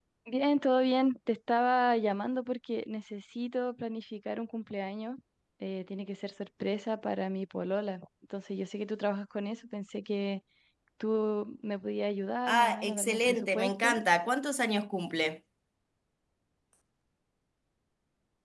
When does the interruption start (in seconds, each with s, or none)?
12.5 s